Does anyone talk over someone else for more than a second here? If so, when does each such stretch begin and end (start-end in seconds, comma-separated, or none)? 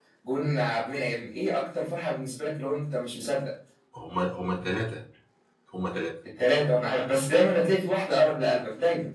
none